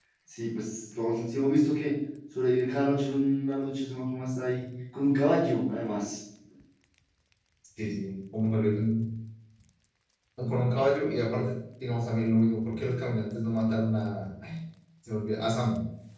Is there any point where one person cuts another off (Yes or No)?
No